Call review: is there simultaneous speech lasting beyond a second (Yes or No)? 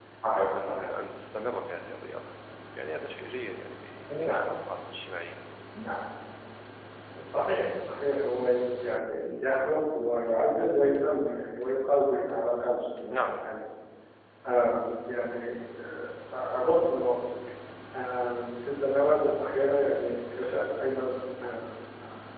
No